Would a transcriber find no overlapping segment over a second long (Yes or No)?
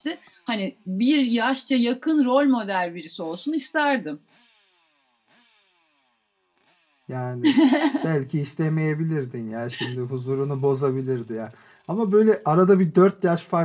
Yes